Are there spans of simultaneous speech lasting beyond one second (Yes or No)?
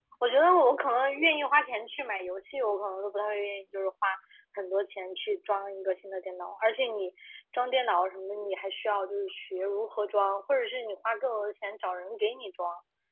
No